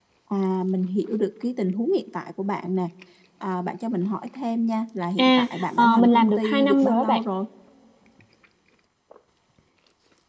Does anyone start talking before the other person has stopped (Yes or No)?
Yes